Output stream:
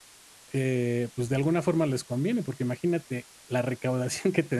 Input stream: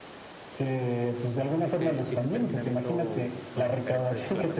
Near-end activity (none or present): present